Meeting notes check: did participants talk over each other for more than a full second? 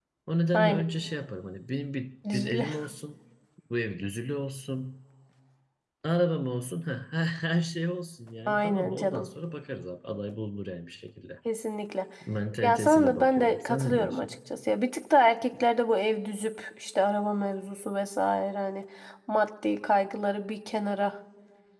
Yes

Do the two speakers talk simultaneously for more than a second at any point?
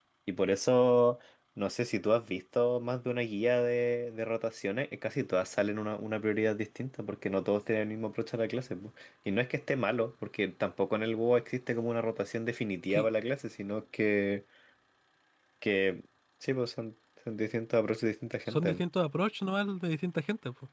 No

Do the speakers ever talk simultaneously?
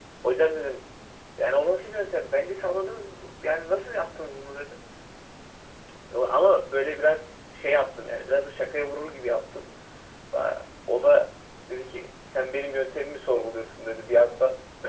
No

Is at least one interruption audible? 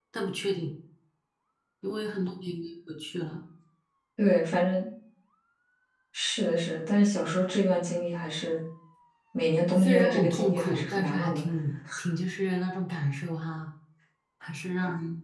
Yes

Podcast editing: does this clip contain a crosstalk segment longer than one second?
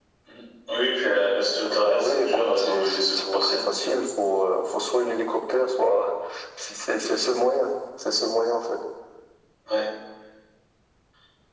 Yes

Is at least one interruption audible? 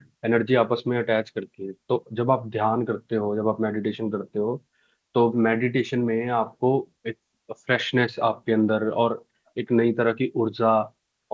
No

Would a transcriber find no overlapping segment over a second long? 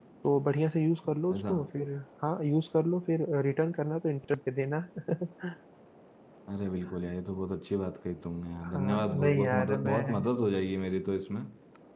No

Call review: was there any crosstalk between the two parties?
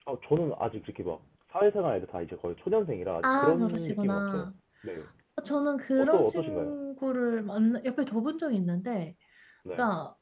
Yes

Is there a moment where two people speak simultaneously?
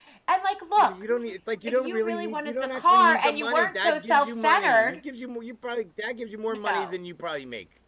Yes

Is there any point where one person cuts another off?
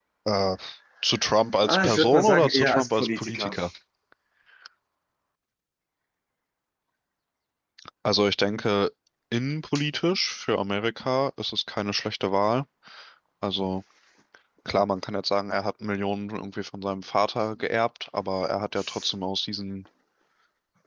Yes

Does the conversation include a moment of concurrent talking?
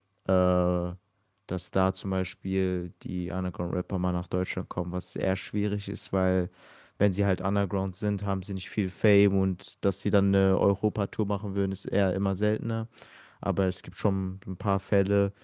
No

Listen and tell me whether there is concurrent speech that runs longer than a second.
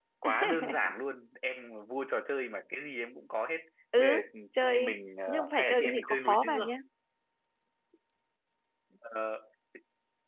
Yes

